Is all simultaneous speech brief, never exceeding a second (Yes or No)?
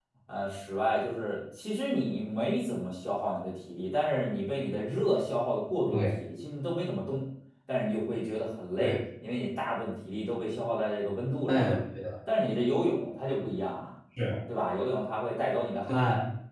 Yes